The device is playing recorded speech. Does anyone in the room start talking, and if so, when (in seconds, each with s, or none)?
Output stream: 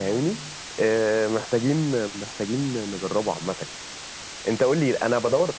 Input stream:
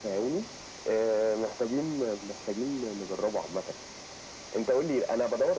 none